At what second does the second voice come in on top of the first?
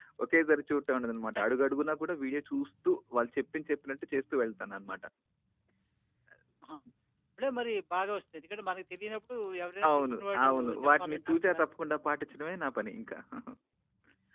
9.8 s

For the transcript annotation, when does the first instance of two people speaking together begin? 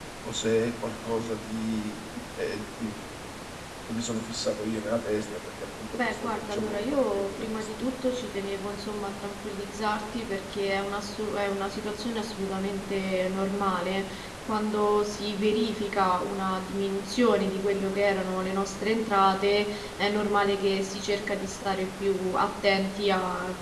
5.9 s

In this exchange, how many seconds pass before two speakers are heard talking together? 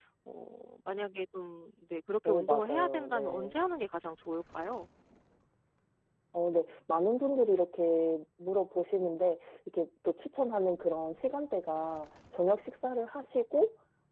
2.2 s

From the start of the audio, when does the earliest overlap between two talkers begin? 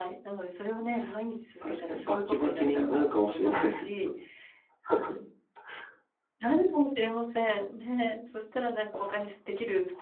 1.6 s

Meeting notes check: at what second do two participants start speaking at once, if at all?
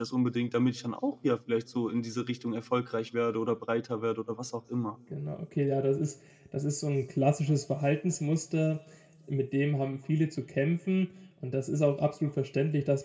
none

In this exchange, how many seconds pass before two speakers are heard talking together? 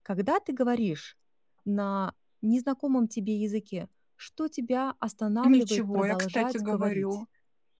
5.4 s

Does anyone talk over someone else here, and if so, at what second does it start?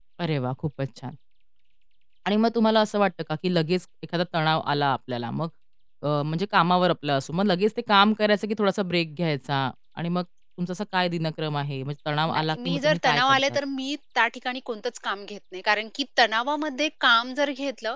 12.3 s

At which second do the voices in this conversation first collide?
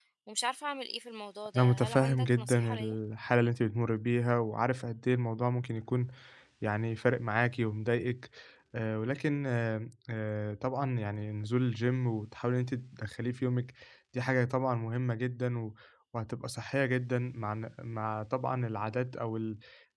1.5 s

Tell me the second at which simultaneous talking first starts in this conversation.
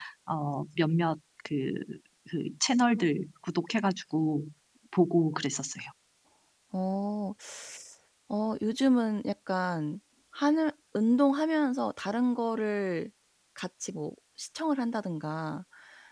none

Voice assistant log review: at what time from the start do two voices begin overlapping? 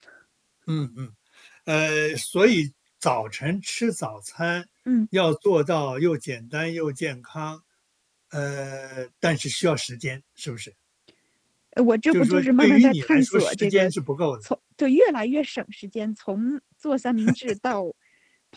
12.1 s

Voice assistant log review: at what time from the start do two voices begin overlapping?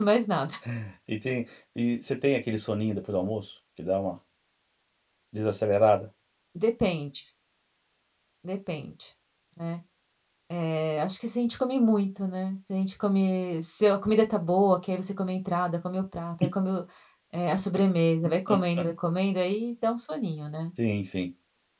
none

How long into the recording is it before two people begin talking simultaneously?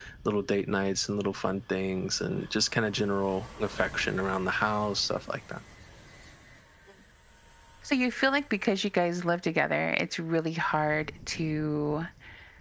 none

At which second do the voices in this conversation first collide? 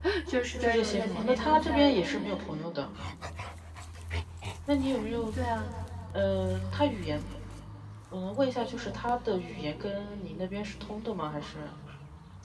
0.6 s

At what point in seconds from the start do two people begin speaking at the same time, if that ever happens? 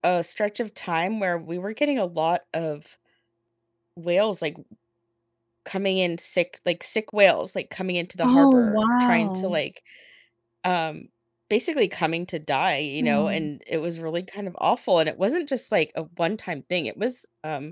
8.2 s

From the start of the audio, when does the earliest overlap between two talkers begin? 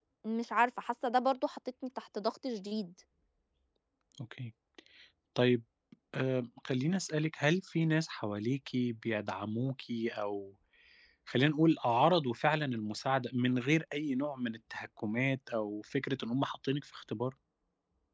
none

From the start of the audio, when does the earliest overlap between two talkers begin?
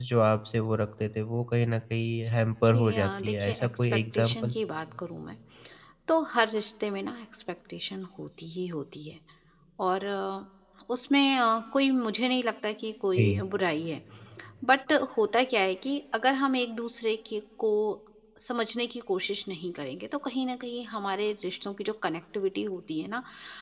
2.6 s

